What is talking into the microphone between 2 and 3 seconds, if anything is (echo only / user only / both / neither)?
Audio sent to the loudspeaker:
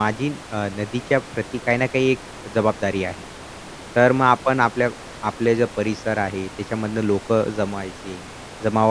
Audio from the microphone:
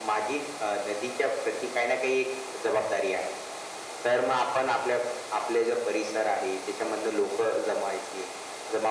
echo only